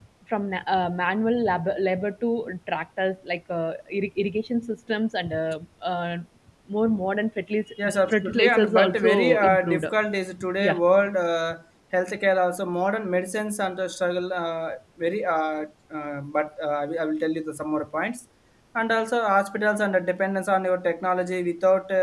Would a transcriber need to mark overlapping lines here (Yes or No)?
Yes